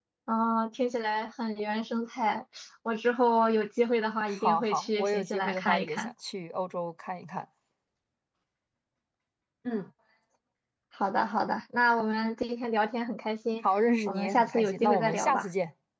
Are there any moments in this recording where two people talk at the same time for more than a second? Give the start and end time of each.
4.3-6.1, 14.1-15.5

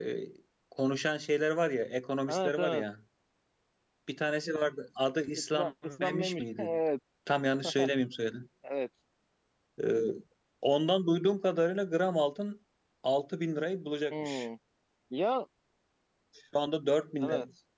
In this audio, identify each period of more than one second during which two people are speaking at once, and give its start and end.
5.4-6.7

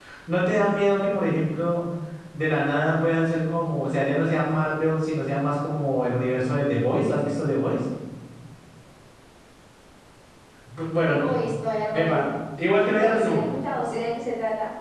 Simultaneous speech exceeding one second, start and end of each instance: none

